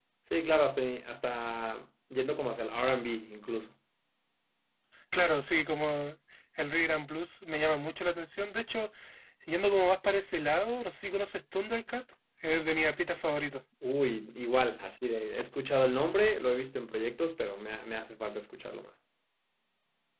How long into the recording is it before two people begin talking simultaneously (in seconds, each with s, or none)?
none